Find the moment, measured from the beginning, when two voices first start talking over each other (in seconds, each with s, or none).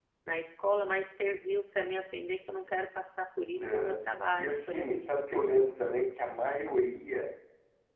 3.5 s